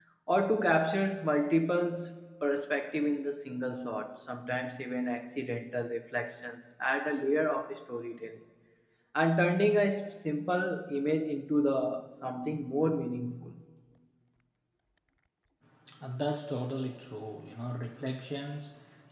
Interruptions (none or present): none